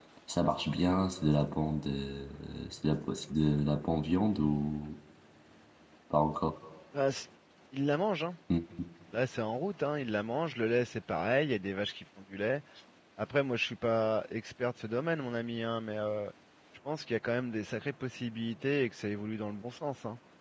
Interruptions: none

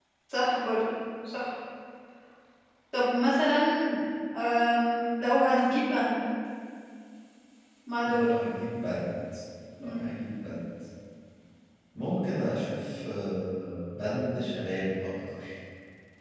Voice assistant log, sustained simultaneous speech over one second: none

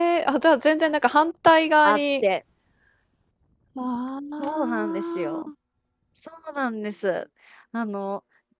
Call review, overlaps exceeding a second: present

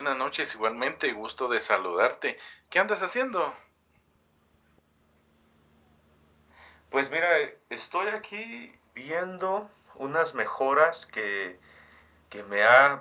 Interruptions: none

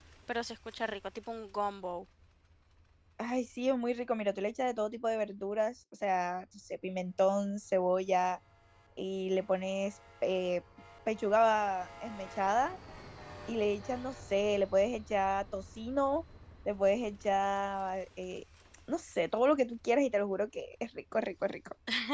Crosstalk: none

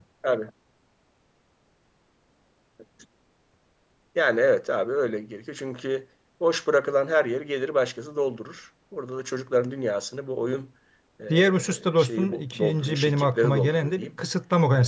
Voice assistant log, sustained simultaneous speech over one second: present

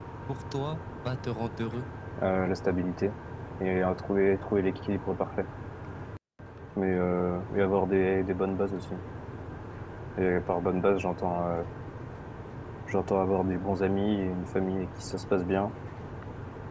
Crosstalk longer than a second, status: none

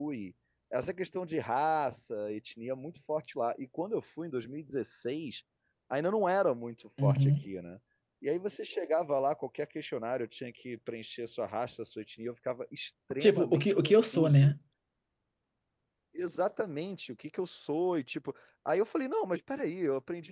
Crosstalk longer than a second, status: present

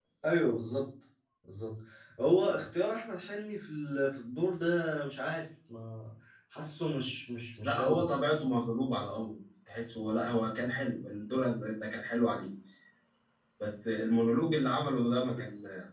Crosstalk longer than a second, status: none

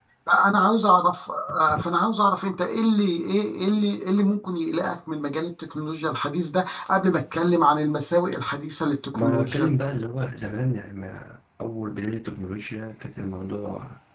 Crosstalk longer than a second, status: none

